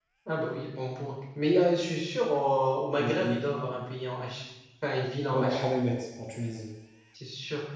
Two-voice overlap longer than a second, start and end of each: none

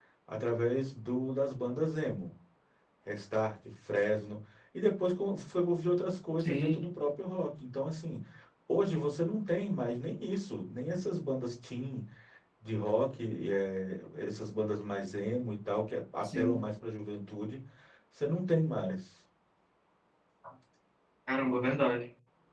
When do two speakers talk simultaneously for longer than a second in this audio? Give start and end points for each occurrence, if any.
none

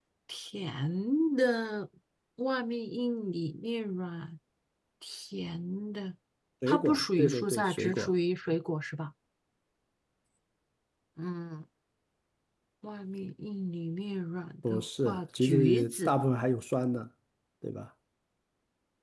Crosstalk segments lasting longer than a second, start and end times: 6.7-8.1, 14.7-16.1

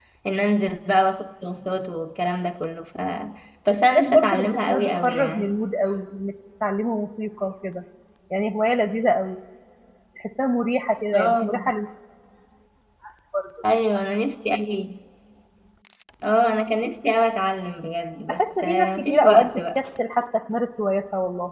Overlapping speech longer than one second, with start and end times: 3.9-5.6, 18.3-19.8

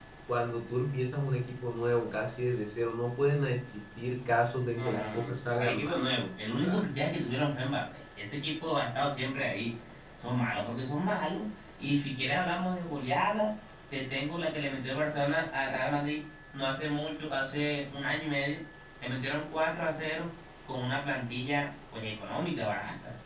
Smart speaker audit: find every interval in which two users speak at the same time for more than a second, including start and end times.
4.8-6.0

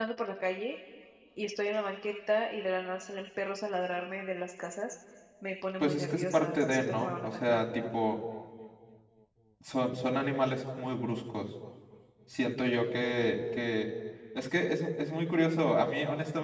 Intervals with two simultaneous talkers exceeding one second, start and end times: 5.8-7.6

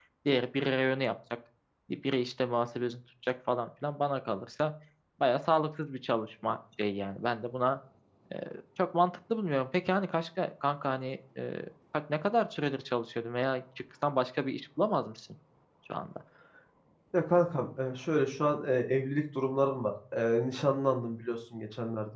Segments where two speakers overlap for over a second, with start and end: none

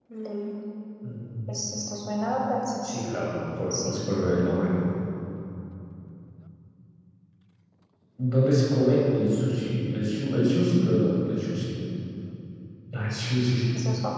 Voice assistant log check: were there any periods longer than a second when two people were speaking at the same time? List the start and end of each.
none

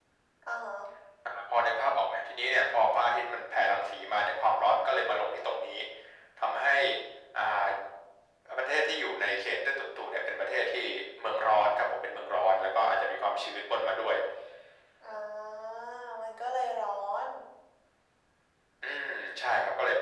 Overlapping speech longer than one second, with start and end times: none

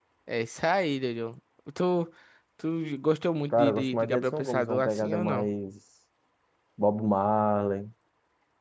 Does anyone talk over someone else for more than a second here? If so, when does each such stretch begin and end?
3.5-5.5

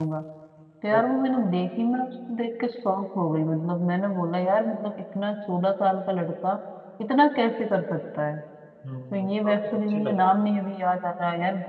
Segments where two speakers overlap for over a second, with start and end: 9.1-10.3

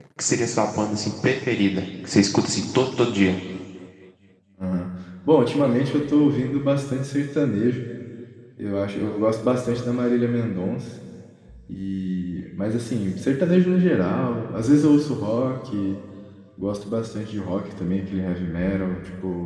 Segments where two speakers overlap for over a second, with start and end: none

